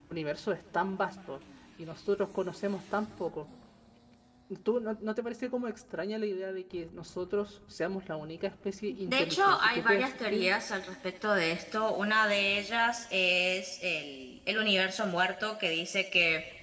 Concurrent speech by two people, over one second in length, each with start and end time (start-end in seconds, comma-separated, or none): 9.1-10.5